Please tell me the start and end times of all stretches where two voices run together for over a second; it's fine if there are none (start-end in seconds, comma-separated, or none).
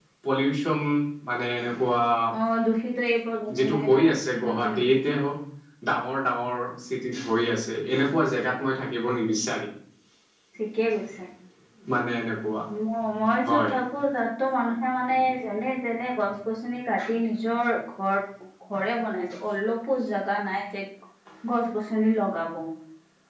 3.6-4.8